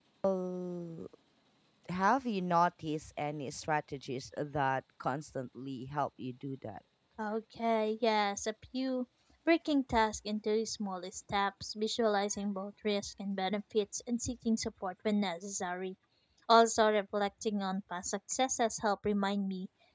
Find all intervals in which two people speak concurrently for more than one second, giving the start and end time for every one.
none

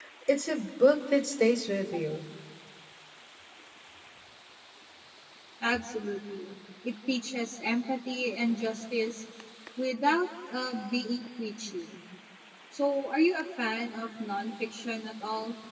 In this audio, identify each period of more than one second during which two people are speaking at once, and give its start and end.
none

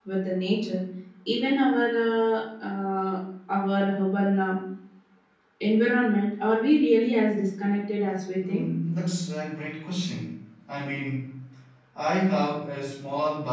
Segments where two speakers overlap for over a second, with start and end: none

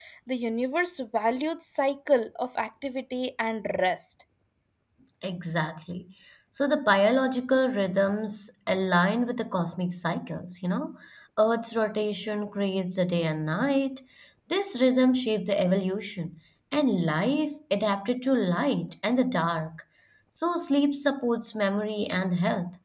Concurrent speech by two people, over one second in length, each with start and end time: none

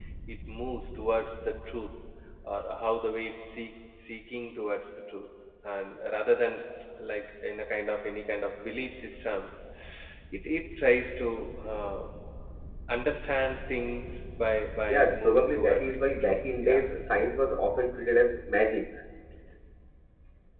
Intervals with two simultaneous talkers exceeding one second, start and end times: 14.9-16.8

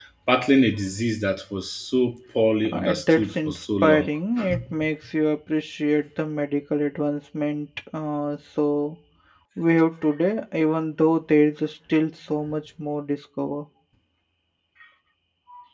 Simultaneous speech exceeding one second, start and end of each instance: 2.7-4.1

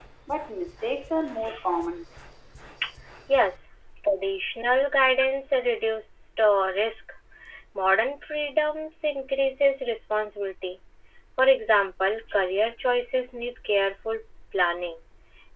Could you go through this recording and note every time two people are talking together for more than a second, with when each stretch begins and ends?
none

